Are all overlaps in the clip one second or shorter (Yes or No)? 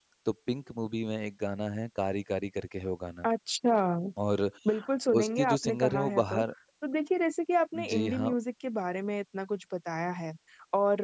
No